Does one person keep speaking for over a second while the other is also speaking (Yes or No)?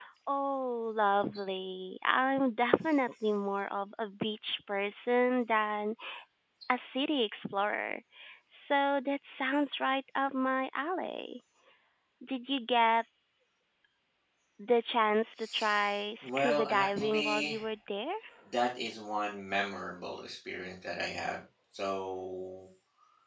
Yes